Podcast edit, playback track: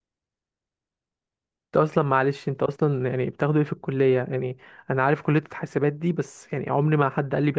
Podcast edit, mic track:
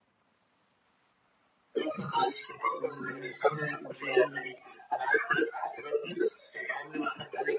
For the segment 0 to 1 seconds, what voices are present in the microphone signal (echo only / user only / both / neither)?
neither